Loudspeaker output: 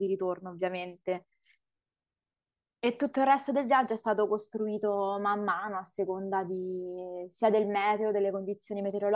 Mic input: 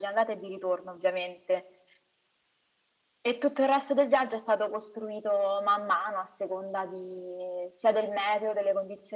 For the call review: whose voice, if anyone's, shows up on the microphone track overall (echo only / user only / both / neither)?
echo only